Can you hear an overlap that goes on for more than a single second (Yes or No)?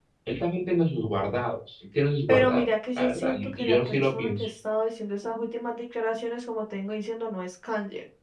Yes